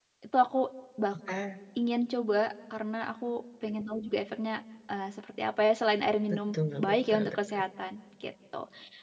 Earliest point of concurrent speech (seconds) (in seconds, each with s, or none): 6.3 s